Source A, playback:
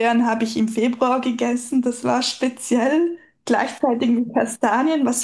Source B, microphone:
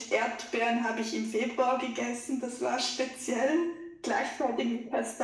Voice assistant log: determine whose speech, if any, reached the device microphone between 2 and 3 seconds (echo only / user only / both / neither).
echo only